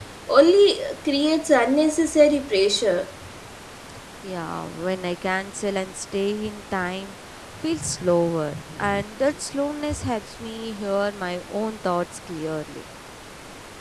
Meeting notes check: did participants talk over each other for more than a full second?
No

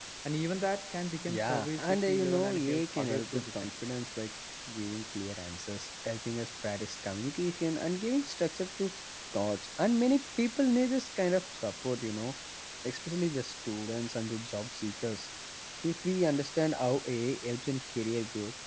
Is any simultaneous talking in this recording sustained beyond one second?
Yes, from 1.3 s

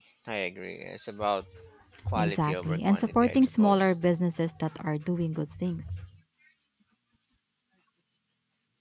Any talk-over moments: Yes, from 2.2 s

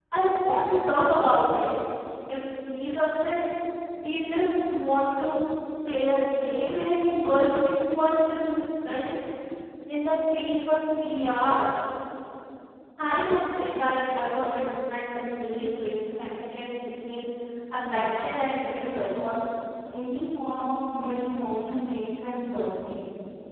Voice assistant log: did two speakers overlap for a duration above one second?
Yes, from 17.8 s

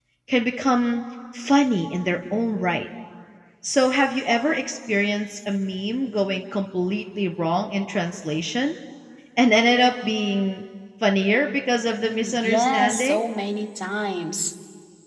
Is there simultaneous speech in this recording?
Yes, from 12.0 s

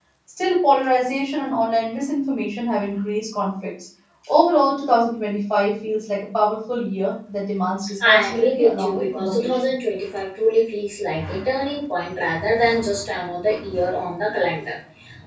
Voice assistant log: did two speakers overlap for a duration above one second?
Yes, from 8.0 s

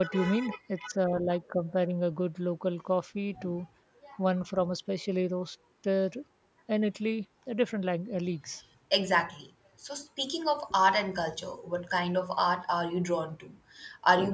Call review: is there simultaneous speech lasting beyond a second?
No

